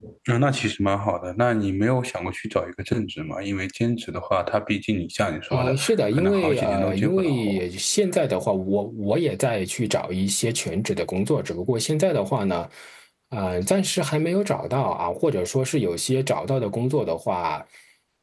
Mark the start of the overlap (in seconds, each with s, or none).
5.5 s